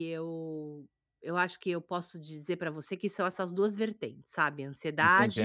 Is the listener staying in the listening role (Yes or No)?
No